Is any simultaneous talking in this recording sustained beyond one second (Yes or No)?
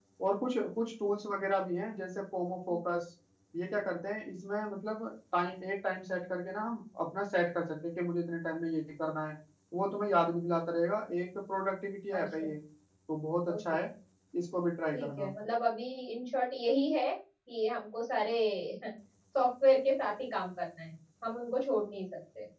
No